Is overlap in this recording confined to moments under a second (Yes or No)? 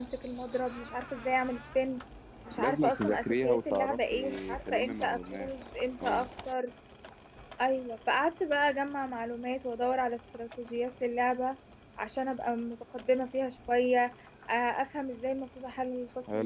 No